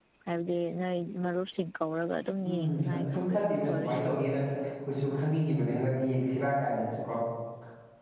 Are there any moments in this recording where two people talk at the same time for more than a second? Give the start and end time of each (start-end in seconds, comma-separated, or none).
2.5-4.0